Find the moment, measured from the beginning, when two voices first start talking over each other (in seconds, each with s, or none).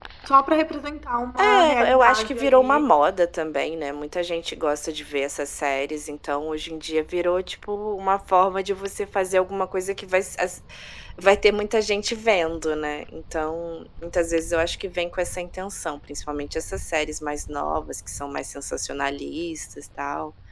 1.4 s